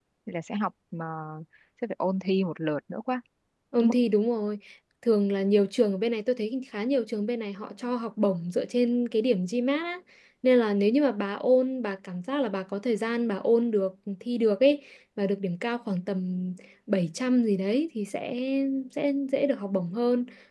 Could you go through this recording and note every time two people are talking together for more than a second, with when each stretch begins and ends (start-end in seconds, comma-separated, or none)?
none